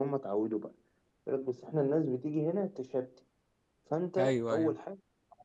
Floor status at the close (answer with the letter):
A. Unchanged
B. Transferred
A